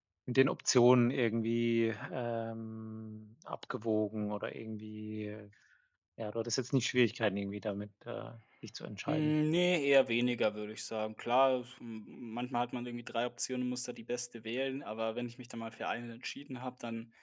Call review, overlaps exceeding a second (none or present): none